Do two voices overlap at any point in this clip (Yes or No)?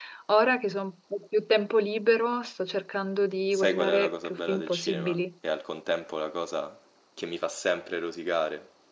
Yes